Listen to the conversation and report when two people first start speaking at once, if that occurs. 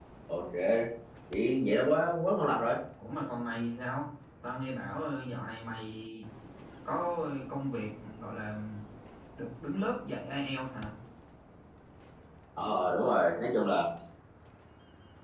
none

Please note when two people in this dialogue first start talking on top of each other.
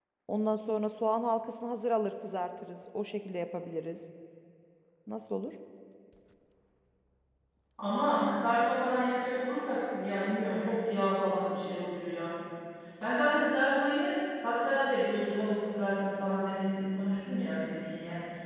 none

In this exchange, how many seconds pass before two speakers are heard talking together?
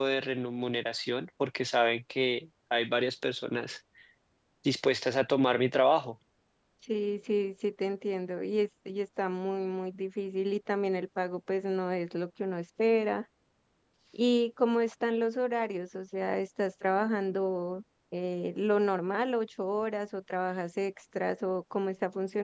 none

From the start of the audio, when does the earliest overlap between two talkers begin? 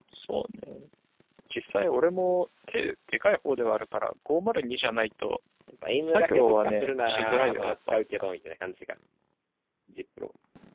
6 s

